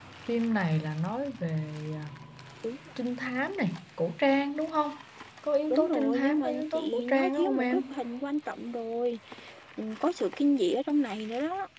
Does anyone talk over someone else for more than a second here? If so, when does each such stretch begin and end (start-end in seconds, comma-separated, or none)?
5.7-7.8